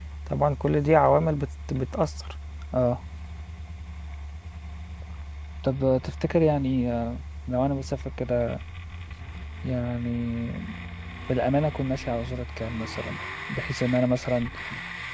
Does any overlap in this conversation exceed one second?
No

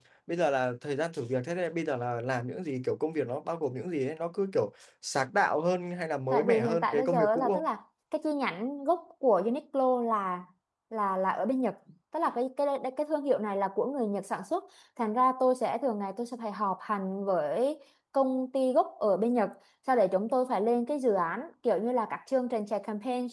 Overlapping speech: Yes, from 6.3 s

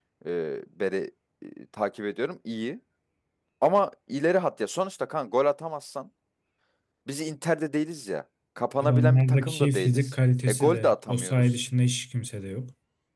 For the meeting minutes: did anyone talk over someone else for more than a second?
Yes, from 8.8 s

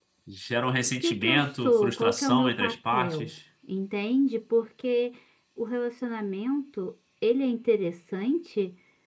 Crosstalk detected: Yes, from 1.0 s

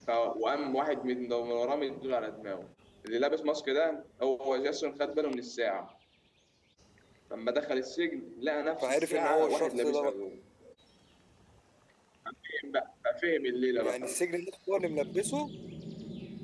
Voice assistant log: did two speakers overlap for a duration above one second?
Yes, from 8.8 s

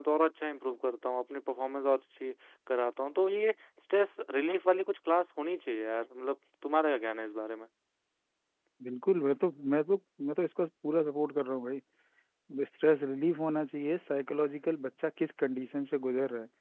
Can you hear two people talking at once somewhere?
No

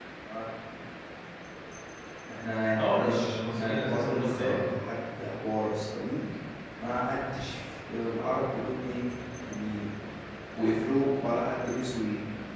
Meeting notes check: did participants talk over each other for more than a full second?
Yes, from 2.8 s

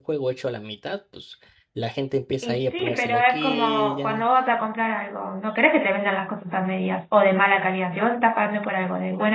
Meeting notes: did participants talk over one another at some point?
Yes, from 2.4 s

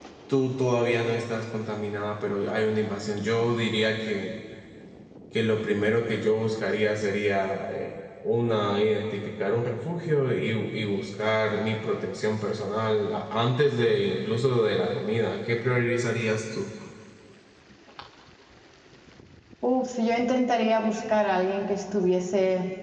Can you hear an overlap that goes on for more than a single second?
No

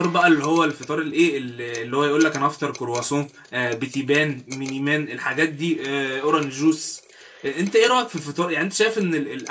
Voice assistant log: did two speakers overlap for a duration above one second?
No

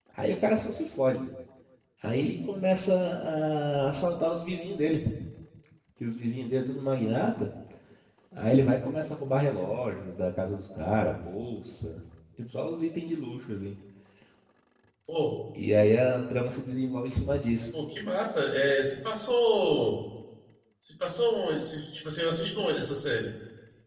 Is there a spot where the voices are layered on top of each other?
No

